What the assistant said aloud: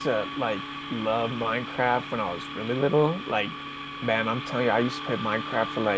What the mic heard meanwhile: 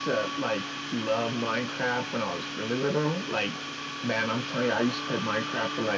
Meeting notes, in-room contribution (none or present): none